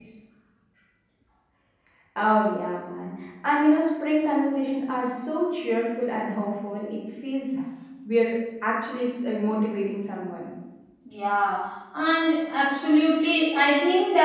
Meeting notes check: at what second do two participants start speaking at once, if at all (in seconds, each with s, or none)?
none